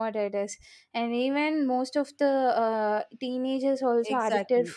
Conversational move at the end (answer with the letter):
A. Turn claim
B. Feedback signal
A